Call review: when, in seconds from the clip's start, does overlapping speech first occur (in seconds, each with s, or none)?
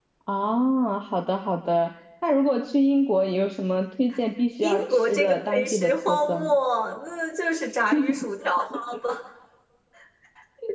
4.6 s